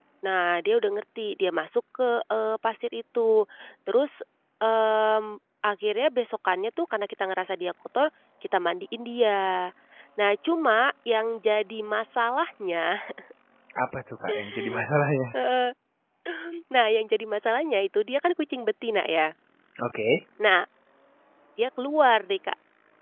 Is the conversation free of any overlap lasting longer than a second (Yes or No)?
Yes